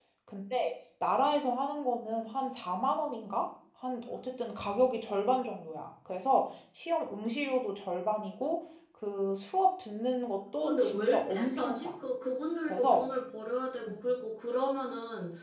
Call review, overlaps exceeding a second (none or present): present